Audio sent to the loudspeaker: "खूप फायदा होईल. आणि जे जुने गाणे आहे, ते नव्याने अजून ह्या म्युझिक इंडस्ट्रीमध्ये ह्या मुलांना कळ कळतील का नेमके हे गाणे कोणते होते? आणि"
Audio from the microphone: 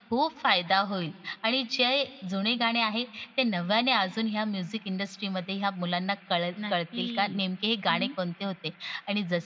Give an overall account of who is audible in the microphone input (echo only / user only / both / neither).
both